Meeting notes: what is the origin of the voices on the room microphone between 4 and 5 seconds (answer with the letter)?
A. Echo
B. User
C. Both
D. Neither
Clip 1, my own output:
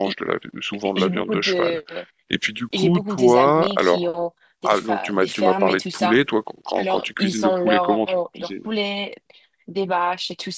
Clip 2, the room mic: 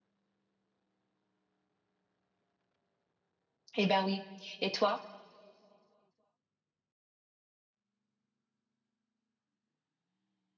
B